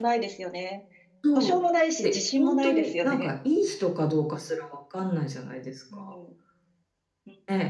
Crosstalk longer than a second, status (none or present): present